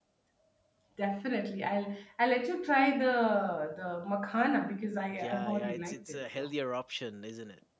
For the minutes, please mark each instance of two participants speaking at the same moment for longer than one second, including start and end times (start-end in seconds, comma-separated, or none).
5.2-6.5